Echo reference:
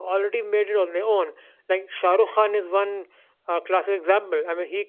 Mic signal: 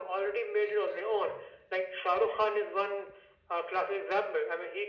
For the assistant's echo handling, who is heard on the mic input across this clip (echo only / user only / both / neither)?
echo only